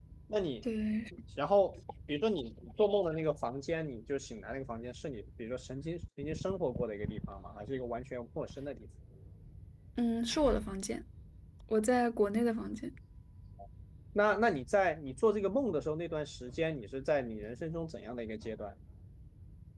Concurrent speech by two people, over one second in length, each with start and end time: none

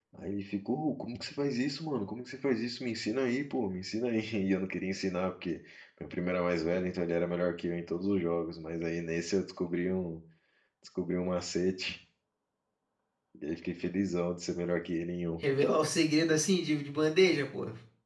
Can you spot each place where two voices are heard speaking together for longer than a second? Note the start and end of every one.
none

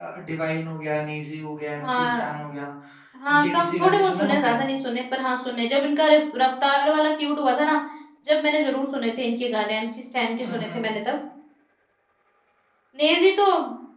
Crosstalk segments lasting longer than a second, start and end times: 3.3-4.6

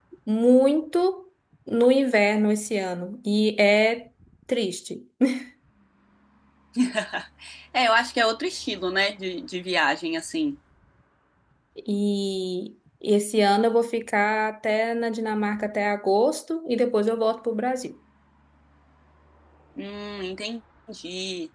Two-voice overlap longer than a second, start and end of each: none

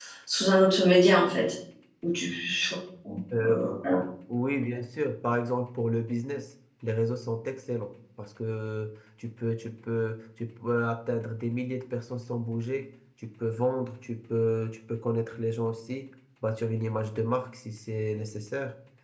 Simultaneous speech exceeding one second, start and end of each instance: none

